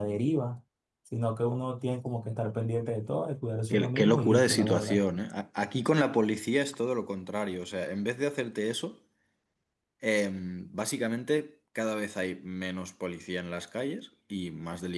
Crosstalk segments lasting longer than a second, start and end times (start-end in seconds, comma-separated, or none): 3.7-5.0